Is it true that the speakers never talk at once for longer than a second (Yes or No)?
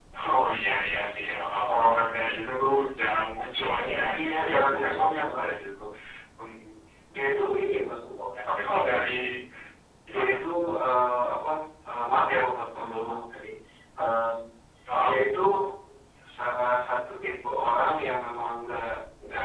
No